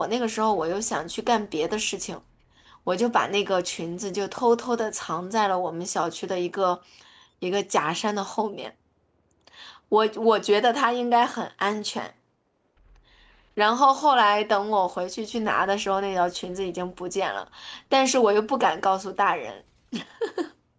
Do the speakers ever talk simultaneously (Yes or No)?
No